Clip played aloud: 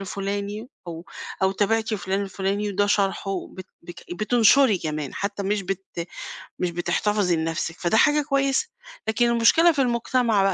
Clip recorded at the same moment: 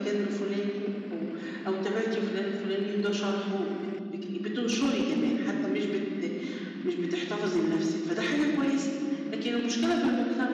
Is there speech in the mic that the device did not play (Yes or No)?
No